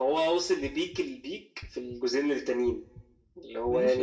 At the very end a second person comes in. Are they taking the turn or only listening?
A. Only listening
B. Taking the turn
B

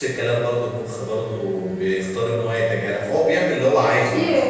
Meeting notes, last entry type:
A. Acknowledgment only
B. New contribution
B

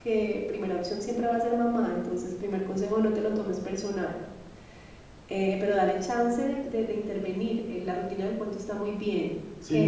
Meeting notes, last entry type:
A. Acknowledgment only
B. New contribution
B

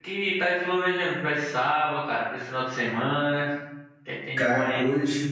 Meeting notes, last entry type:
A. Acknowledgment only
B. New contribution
B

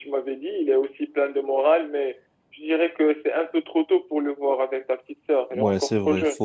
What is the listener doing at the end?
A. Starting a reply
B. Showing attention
A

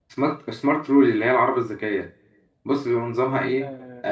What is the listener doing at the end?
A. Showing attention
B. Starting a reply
B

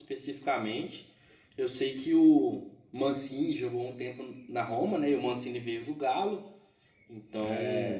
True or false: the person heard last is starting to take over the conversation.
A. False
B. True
A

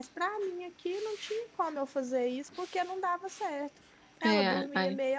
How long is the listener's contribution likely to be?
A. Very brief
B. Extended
A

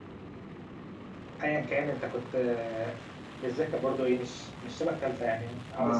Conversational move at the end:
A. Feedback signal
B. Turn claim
B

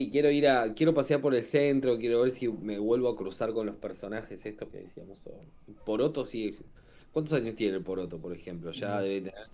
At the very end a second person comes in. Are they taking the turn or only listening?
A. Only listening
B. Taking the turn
A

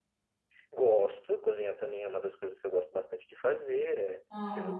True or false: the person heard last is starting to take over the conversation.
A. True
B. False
B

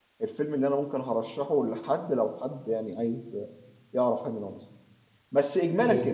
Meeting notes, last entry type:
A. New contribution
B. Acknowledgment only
B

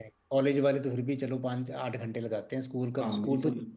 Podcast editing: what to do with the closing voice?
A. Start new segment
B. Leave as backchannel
A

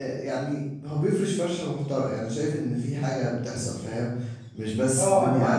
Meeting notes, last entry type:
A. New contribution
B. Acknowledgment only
A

